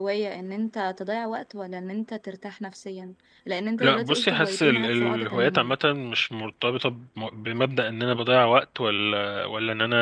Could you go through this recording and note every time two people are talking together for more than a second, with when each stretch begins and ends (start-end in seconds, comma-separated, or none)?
3.8-5.7